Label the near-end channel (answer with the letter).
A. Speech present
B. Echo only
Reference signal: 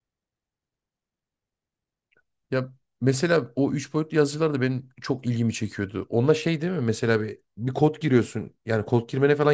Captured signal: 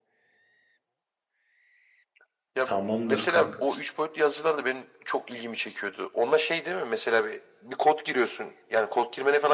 A